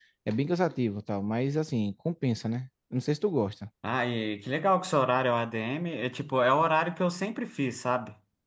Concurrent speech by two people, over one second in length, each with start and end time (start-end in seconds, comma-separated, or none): none